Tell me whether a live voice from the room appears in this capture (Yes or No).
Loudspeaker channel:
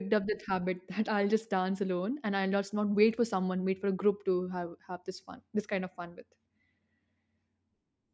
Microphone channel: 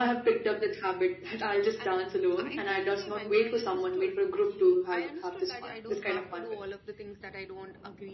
Yes